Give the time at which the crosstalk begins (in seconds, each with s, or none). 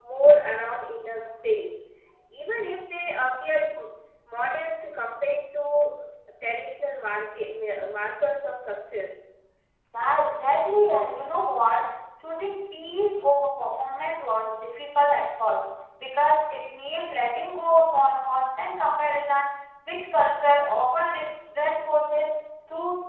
none